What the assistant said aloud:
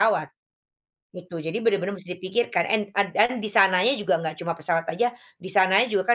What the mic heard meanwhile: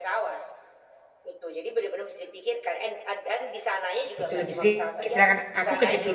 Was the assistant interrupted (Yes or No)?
Yes